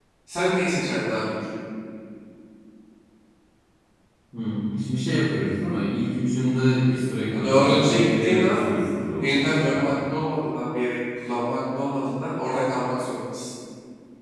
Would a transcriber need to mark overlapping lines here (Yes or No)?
Yes